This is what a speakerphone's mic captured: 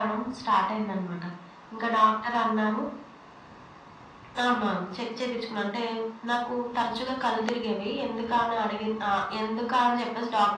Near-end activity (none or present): none